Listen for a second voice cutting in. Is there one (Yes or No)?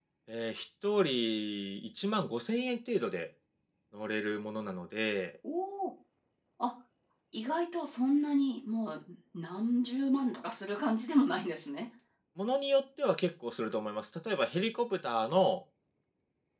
No